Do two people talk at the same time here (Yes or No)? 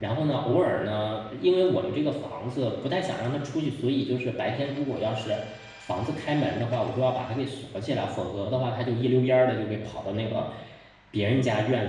No